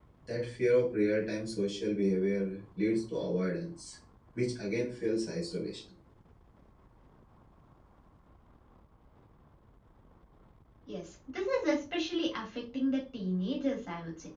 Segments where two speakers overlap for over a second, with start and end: none

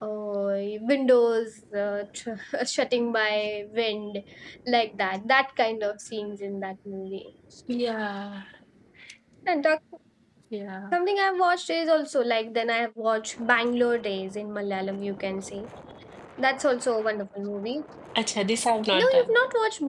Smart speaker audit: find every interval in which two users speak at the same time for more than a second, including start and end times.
none

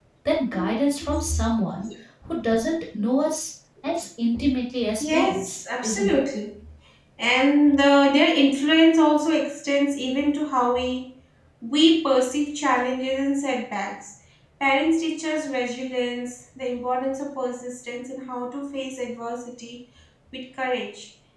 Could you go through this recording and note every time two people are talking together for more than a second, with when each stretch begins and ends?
5.0-6.2

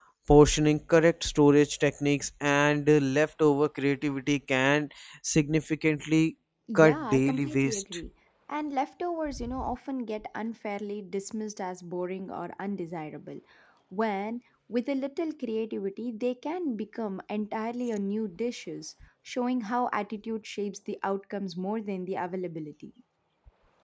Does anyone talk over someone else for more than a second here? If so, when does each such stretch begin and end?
6.8-8.1

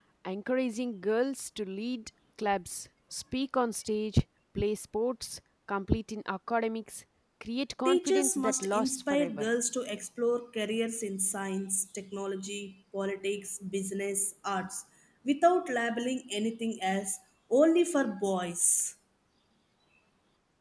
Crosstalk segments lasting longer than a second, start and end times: 7.8-9.5

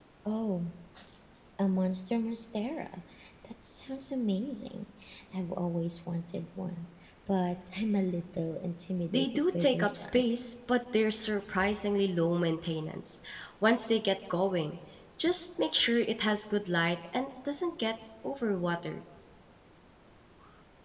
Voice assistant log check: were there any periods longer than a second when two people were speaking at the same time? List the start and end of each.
9.1-10.5

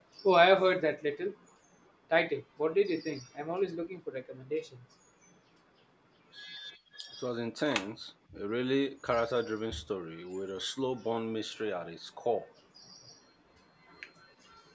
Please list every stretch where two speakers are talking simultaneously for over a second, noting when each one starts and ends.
none

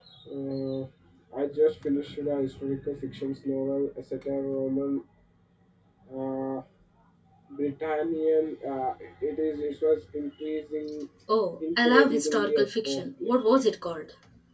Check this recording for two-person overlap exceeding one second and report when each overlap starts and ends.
11.8-13.6

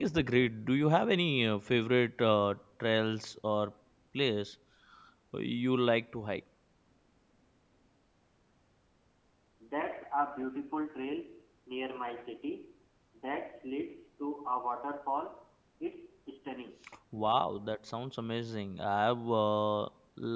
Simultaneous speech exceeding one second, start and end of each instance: none

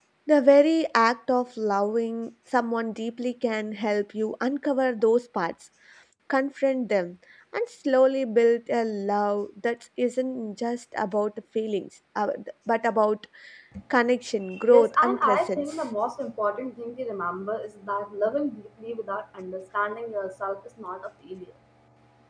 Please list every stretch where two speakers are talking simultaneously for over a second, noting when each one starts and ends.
14.6-15.8

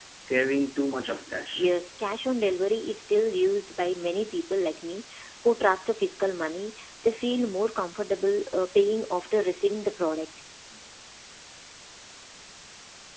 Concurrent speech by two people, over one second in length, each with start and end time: none

